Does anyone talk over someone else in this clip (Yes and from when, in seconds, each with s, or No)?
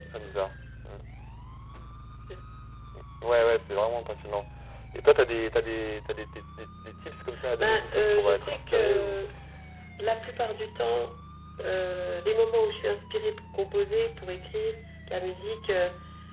Yes, from 7.4 s